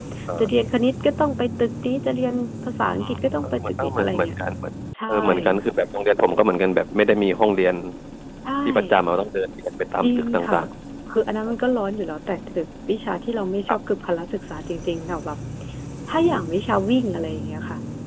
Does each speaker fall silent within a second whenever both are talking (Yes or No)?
No